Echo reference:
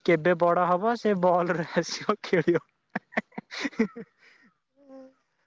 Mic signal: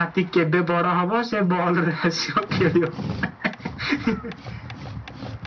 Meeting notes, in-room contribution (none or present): none